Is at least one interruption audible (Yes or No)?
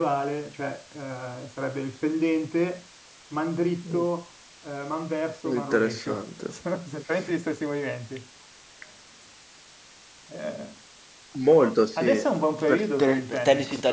Yes